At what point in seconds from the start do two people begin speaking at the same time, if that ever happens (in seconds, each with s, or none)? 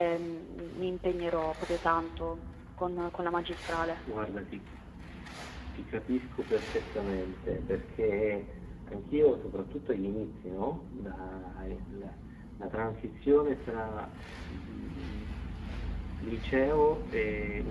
none